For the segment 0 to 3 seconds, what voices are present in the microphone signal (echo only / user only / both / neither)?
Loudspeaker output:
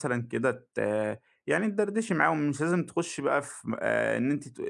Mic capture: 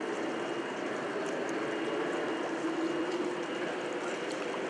neither